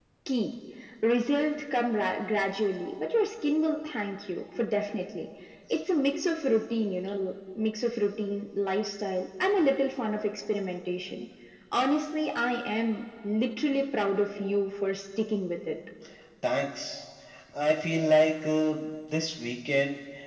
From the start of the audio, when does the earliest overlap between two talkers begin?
none

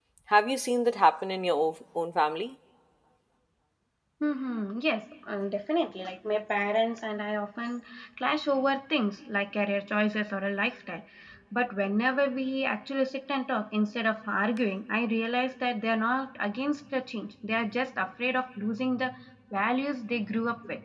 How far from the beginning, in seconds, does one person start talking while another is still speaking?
none

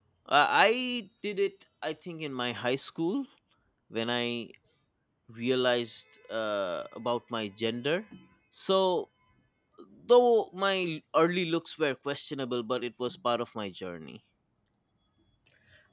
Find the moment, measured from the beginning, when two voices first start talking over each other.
none

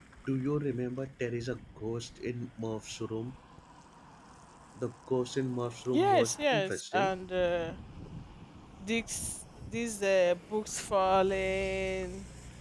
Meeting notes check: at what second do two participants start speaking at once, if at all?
6 s

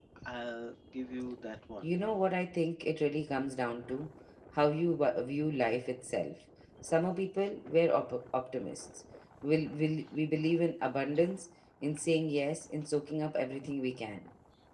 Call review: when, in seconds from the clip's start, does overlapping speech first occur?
none

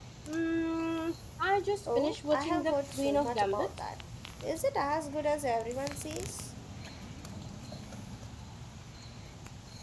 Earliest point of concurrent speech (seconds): 2 s

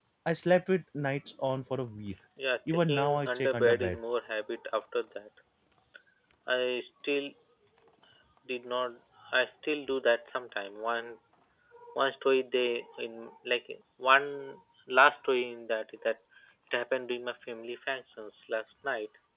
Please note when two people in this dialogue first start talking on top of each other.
3 s

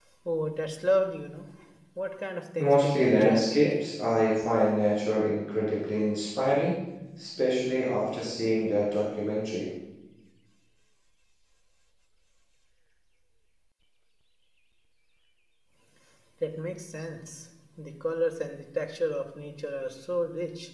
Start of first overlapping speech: 3 s

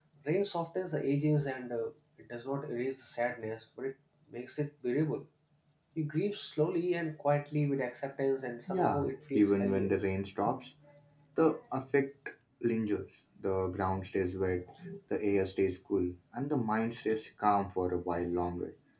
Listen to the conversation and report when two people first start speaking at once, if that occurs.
9 s

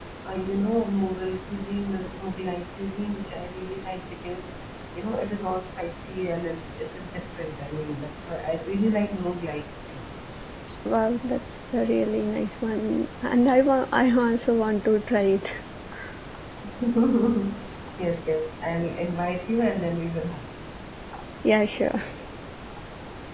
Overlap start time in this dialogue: none

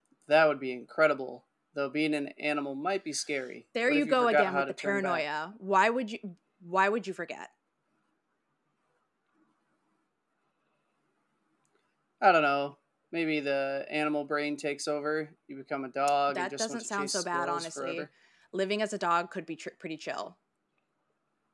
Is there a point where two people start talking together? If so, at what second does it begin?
4 s

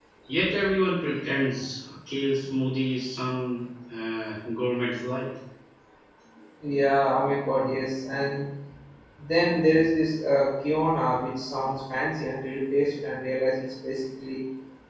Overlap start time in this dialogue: none

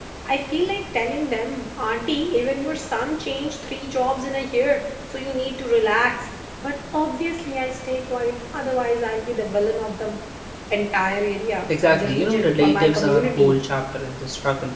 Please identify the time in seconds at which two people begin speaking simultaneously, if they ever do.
12 s

